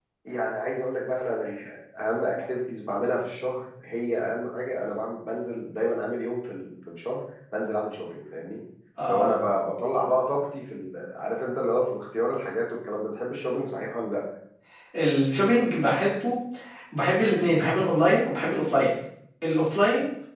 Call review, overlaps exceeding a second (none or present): none